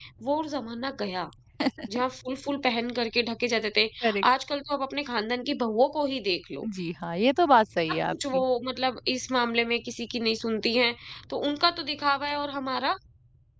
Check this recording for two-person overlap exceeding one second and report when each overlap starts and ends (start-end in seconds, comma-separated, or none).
none